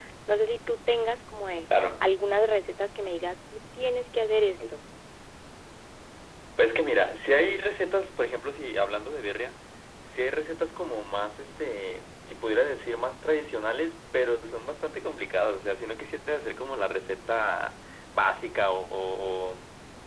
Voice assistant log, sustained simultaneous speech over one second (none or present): none